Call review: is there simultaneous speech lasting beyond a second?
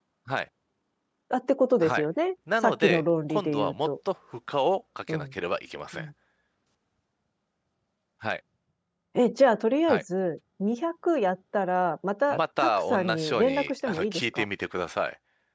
Yes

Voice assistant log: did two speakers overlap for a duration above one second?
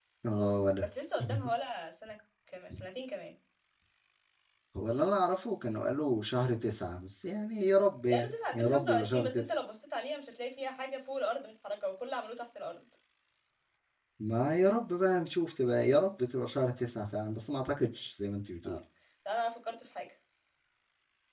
Yes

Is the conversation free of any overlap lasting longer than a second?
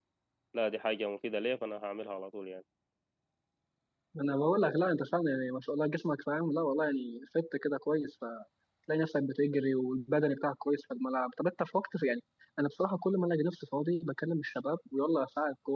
Yes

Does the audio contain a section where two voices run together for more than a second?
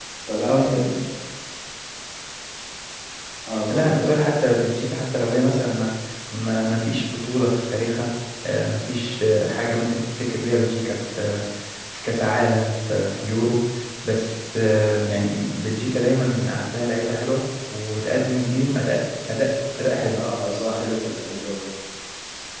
No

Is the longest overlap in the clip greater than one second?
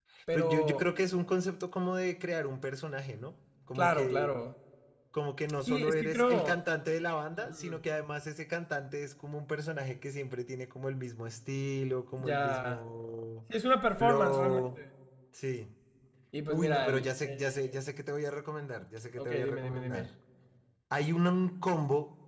Yes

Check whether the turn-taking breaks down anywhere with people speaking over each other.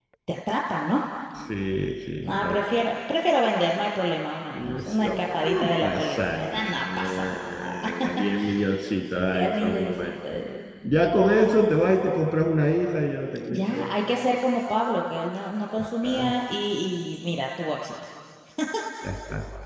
Yes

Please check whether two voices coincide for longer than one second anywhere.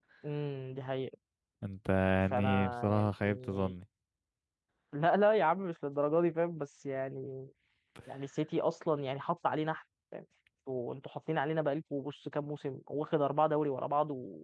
Yes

